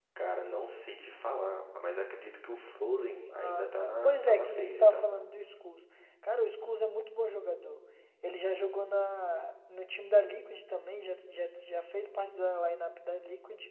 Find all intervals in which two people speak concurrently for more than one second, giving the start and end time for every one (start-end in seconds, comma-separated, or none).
3.3-5.0